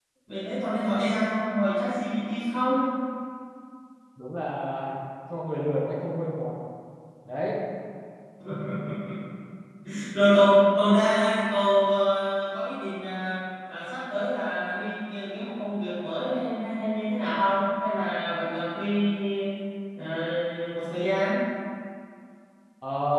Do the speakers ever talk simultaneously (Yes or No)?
No